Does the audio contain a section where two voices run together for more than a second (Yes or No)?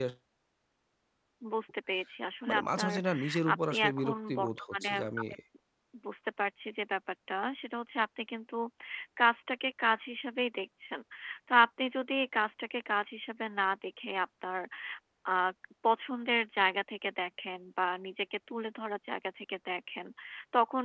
Yes